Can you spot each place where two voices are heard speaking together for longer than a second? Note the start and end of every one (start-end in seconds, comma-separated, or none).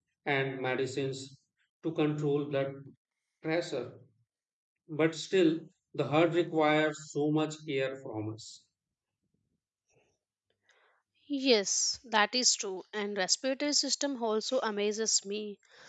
none